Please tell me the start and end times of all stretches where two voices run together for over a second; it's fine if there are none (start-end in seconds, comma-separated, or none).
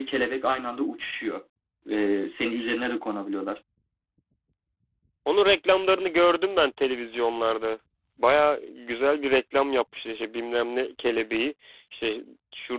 none